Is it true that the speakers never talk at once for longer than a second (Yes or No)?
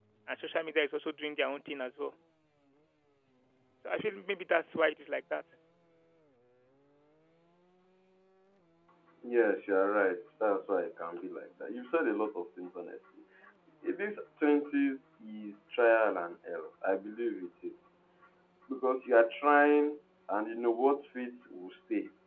Yes